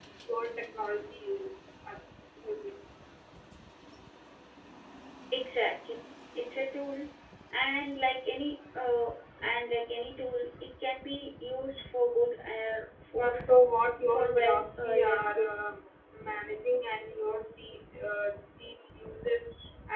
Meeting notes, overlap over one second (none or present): present